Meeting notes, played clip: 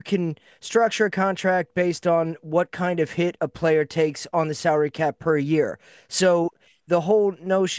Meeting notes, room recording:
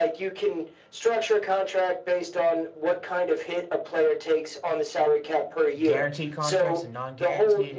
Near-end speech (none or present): present